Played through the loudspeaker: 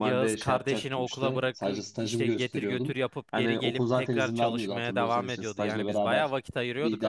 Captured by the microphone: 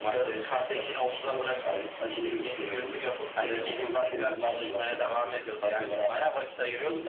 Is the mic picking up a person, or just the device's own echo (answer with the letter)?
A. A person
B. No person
B